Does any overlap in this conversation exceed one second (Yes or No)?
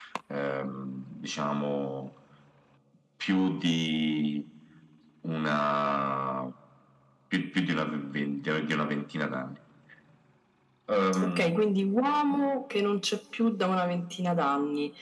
No